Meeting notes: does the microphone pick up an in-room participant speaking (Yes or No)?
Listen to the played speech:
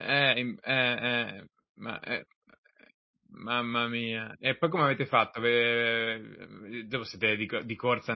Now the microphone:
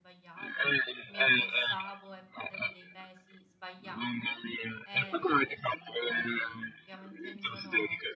Yes